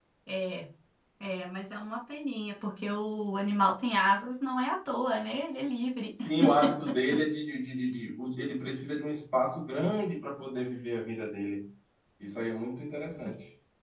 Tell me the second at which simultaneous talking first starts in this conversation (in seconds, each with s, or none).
none